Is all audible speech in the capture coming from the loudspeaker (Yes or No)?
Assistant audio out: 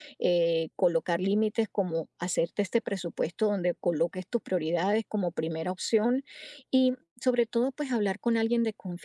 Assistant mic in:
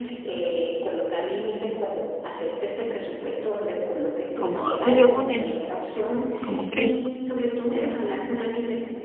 No